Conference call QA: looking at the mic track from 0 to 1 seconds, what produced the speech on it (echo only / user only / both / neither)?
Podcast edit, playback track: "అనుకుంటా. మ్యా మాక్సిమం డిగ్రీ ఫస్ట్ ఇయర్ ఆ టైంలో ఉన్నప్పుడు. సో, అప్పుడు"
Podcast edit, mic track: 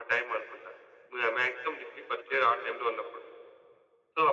echo only